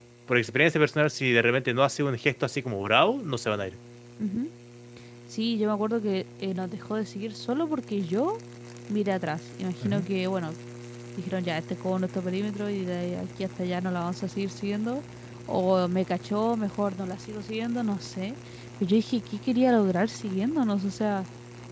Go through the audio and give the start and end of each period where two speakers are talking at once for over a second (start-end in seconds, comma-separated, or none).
none